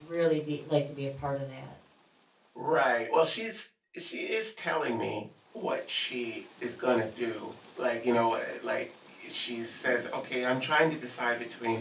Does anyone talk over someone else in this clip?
No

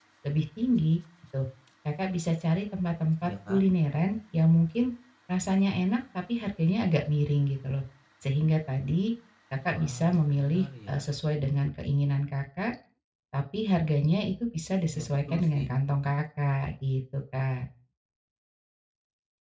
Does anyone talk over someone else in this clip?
Yes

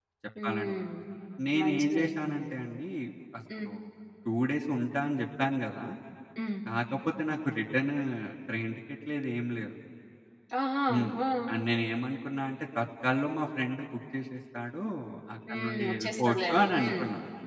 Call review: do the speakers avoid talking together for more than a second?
No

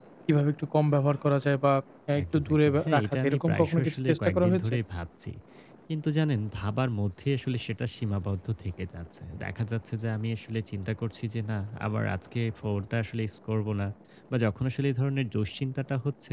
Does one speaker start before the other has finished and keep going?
Yes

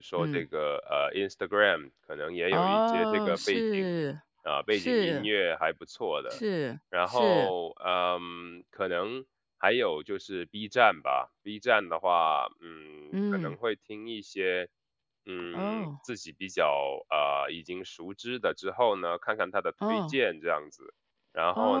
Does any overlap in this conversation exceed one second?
Yes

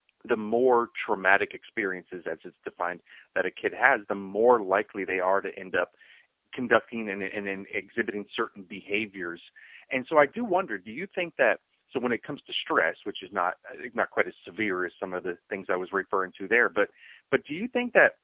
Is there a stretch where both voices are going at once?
No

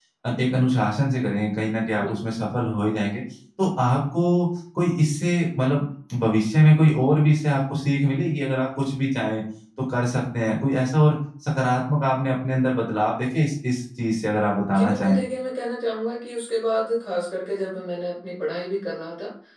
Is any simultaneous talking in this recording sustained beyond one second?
No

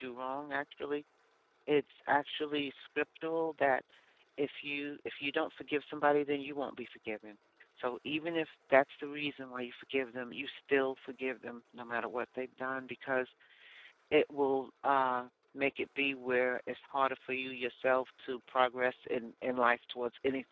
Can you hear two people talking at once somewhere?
No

